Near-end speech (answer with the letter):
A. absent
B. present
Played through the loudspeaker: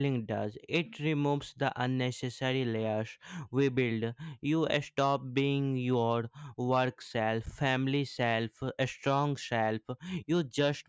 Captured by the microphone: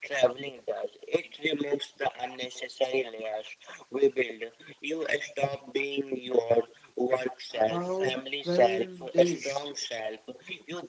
B